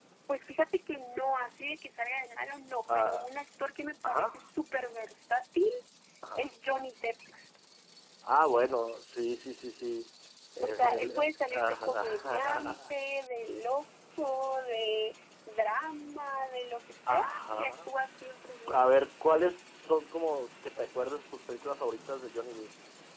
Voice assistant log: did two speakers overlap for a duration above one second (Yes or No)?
Yes